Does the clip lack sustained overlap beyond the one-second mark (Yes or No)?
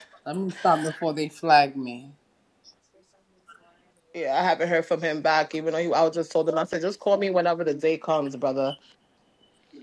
Yes